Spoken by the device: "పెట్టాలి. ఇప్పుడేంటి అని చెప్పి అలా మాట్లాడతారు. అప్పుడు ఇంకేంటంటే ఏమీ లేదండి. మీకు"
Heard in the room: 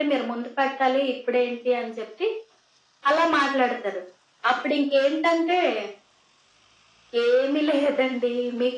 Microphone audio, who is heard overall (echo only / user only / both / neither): echo only